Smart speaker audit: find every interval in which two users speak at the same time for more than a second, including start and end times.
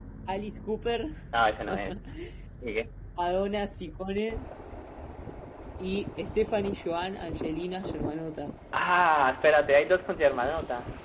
none

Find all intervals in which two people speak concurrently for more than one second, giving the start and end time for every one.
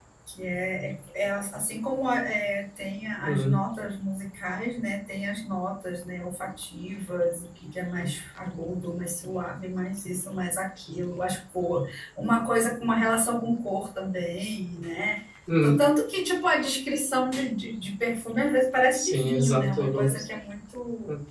18.9-20.3

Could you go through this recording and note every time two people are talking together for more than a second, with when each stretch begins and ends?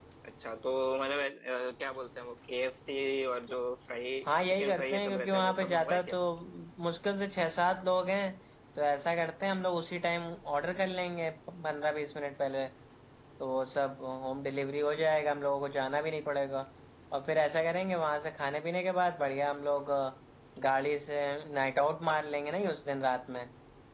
4.2-6.2

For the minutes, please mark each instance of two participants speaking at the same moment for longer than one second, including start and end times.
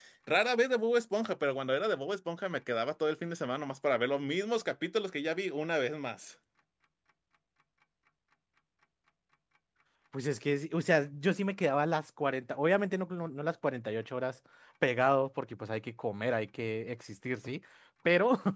none

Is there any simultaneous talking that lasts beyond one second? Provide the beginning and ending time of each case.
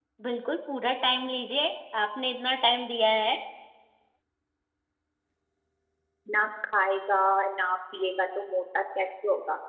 none

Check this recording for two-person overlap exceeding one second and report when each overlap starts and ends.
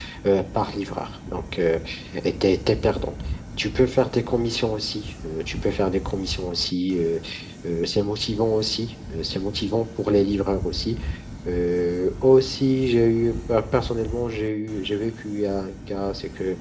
none

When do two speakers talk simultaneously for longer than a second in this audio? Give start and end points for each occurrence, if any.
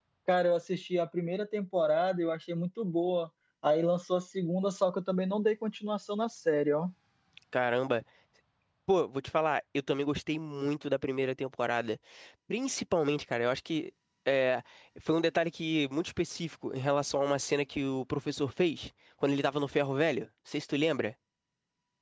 none

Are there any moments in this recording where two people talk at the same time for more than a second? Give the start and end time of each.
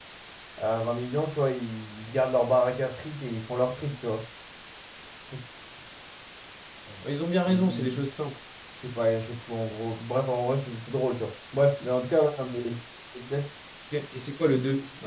none

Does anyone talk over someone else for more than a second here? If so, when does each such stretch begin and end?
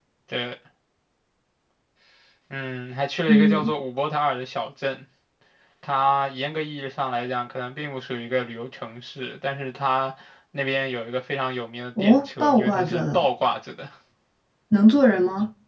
12.0-13.3

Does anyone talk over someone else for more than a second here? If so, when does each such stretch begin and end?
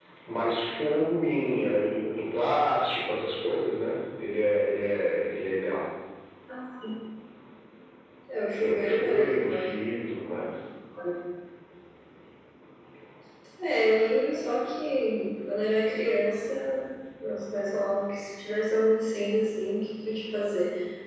8.5-9.7

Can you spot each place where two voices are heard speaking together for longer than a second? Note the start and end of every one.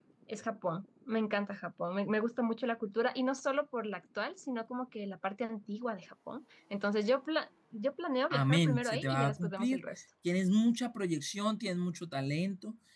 8.3-9.8

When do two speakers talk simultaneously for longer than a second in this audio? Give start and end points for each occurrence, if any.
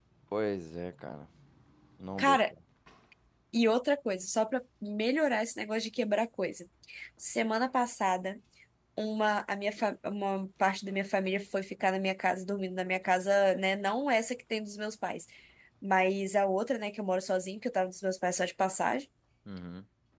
none

